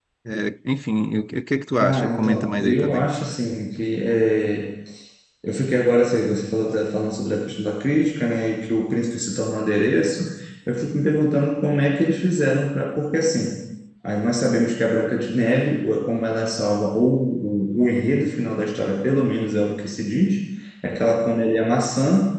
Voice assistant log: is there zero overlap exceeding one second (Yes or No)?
No